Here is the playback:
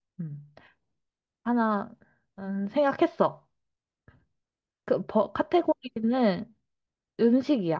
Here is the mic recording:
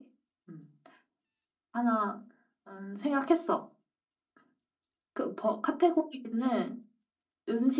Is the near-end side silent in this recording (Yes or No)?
Yes